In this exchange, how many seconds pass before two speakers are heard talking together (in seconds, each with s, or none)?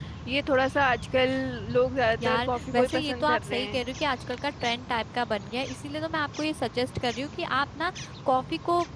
2.2 s